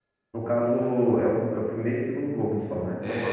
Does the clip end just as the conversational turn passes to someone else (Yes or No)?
Yes